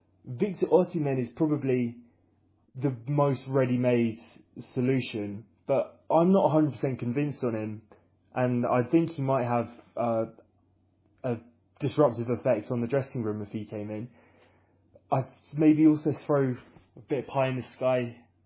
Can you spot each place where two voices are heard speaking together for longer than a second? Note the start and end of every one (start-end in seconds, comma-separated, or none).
none